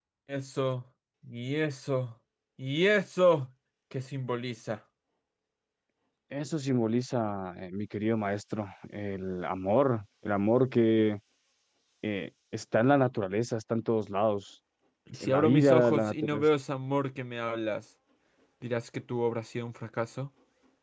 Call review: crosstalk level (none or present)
present